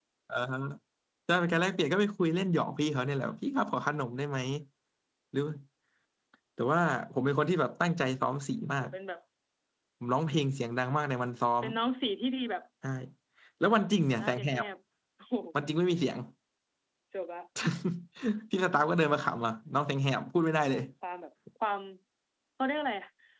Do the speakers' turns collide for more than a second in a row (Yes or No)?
No